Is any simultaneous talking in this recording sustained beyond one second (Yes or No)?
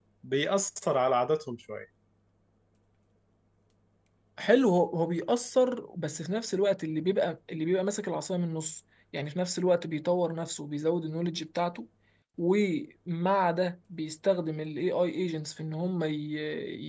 No